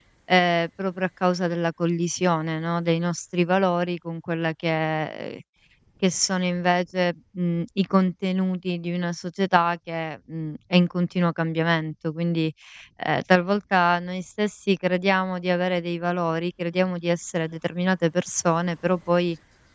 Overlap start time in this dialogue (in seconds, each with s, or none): none